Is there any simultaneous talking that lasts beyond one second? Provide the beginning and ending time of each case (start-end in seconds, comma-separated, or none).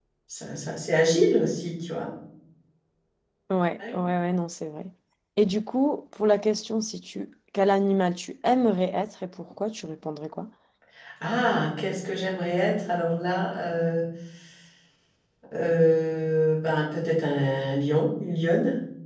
none